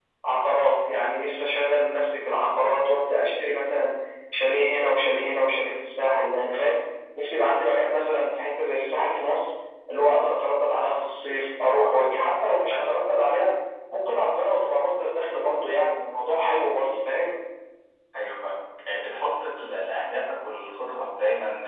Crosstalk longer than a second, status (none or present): none